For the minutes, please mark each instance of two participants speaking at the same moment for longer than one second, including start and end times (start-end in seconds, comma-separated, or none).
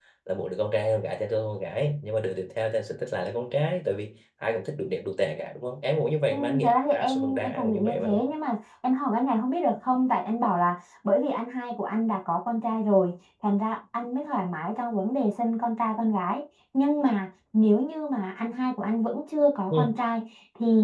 6.3-8.3